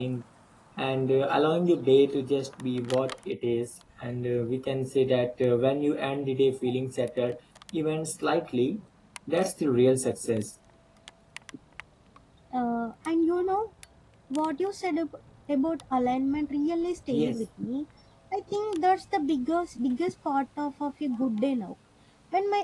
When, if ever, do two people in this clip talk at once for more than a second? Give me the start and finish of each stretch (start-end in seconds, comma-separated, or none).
none